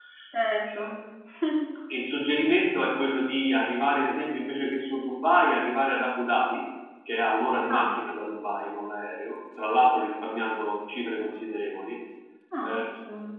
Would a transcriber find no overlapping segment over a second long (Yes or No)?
Yes